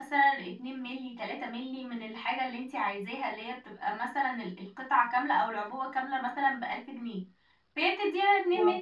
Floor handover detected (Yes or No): No